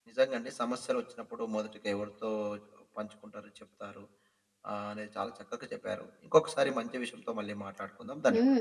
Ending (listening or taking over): taking over